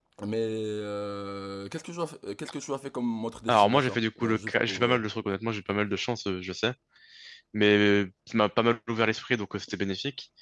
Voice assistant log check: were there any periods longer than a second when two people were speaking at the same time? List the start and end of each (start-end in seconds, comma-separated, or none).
3.5-5.0